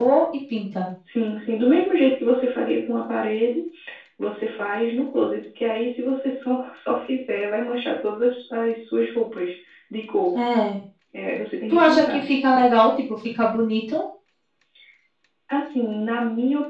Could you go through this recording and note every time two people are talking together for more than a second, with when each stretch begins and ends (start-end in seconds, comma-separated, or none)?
none